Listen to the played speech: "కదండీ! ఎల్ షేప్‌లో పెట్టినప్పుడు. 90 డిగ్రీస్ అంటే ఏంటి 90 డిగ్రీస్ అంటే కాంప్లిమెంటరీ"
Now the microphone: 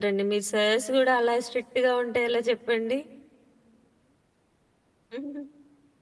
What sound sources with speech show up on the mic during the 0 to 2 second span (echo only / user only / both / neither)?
user only